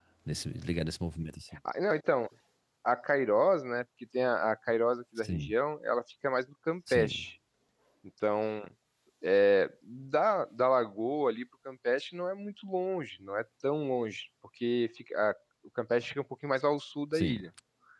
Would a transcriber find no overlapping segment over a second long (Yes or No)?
Yes